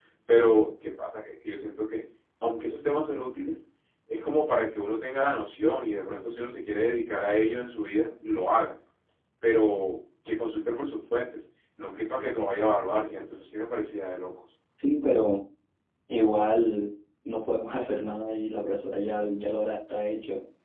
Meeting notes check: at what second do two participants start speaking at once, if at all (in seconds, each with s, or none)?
none